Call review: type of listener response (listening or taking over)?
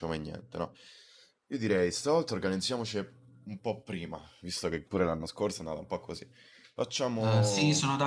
taking over